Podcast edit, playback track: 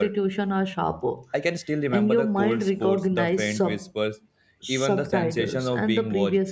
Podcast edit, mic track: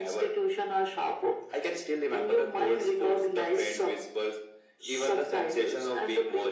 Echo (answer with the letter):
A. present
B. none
A